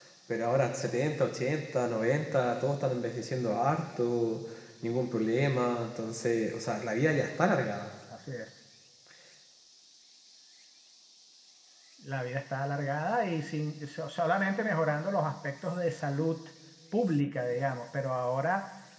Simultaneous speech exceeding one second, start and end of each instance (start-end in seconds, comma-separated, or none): none